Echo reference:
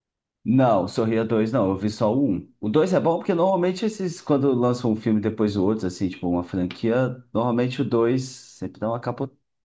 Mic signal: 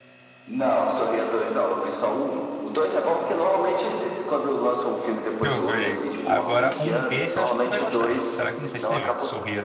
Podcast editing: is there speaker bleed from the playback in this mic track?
Yes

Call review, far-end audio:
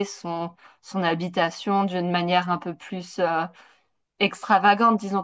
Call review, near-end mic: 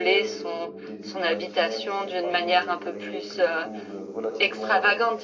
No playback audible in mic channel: No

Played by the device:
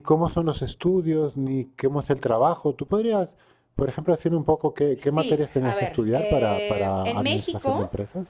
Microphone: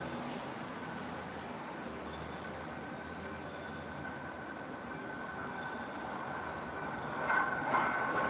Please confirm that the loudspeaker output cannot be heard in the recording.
Yes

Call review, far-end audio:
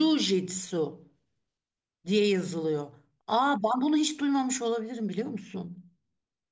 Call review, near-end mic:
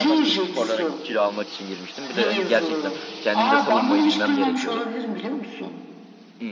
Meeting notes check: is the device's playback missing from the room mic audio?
No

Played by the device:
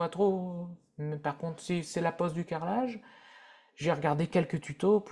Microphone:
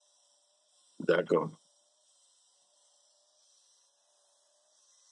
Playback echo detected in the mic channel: No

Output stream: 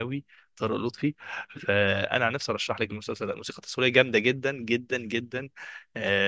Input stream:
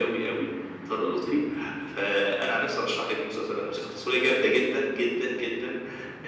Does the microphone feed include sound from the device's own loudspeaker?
Yes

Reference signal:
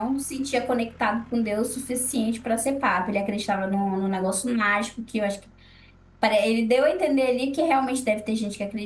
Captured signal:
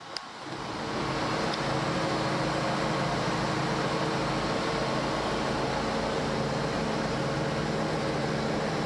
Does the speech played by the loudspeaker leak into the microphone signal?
No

